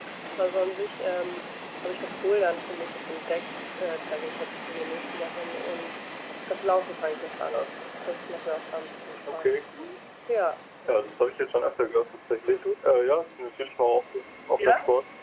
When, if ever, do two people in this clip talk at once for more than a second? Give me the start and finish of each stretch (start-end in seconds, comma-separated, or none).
none